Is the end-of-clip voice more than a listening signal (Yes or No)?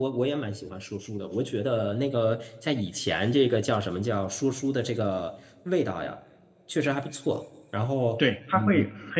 Yes